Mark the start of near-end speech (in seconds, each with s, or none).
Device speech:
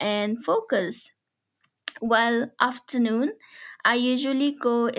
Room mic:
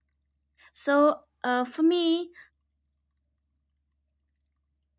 0.7 s